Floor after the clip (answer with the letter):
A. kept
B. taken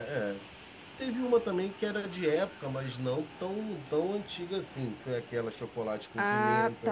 B